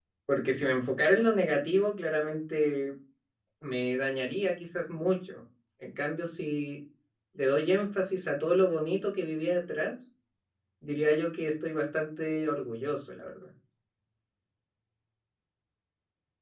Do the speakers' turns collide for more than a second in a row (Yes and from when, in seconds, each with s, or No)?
No